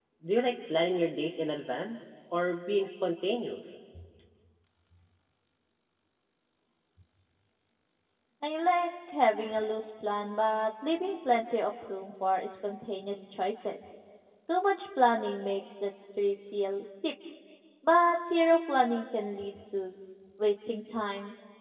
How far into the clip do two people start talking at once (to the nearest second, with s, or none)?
none